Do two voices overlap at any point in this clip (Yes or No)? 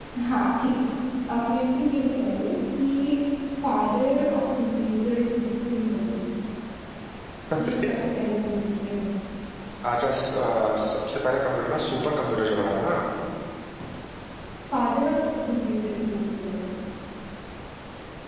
No